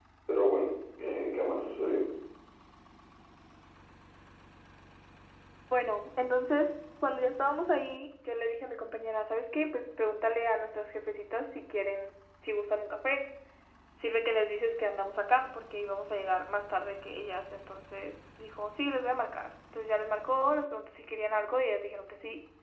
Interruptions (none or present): none